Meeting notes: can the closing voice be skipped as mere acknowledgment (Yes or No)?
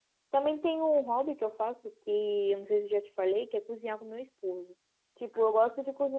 Yes